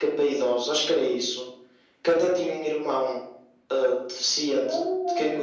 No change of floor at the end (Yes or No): No